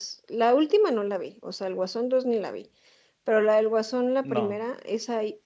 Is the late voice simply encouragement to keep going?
Yes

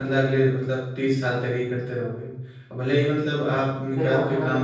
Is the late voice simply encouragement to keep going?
No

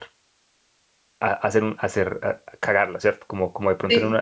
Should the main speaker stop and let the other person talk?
No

